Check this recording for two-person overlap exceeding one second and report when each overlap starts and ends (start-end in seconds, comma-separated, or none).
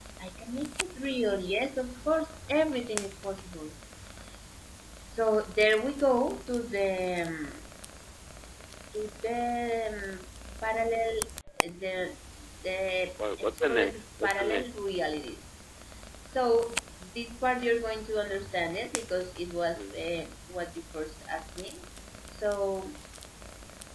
13.4-14.6